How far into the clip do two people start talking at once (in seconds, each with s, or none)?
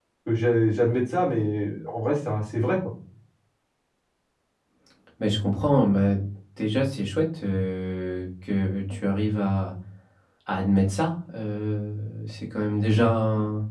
none